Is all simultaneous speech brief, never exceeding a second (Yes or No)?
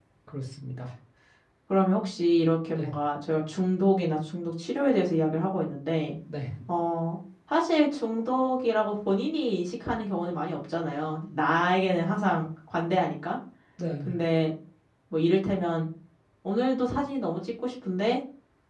Yes